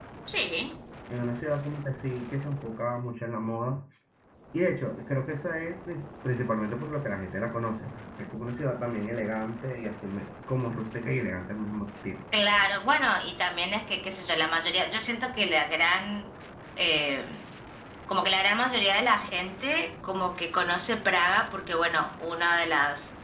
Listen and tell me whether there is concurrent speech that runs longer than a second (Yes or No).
No